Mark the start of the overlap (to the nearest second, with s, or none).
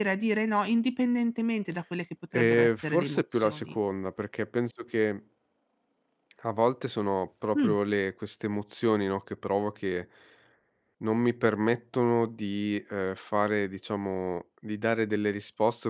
2 s